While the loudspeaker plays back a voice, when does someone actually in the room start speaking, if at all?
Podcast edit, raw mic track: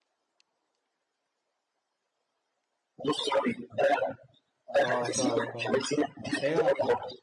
5 s

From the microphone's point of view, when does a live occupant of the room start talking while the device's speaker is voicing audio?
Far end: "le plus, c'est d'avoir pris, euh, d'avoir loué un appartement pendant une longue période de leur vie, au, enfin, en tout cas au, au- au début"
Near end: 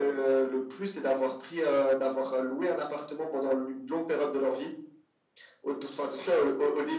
none

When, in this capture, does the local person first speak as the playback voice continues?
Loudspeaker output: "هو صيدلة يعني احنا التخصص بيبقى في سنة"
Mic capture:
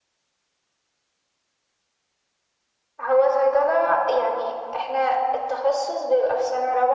none

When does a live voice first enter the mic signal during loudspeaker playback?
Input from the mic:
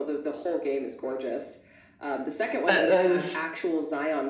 3 s

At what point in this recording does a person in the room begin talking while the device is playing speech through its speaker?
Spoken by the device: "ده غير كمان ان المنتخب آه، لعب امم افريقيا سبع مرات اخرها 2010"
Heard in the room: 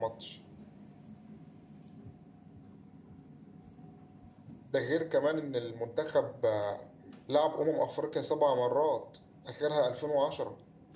none

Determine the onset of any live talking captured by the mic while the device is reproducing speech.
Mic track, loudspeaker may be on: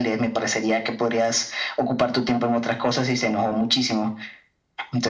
none

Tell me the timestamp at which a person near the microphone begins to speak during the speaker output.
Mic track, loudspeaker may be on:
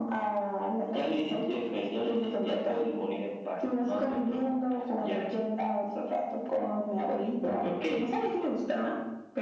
none

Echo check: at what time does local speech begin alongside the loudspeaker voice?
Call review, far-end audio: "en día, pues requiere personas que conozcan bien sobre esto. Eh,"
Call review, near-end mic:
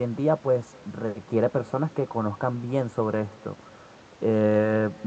none

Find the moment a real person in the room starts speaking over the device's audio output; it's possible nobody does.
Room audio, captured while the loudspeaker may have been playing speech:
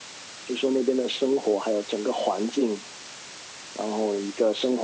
none

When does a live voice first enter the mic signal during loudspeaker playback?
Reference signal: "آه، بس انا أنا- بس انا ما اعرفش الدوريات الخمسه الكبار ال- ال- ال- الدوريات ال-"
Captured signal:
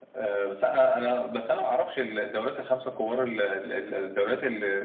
none

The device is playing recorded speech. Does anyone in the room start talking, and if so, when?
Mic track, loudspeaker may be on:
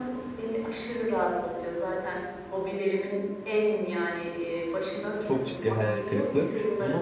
5 s

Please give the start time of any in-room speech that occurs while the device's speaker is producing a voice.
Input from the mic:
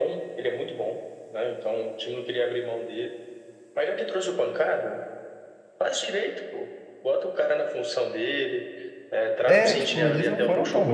9 s

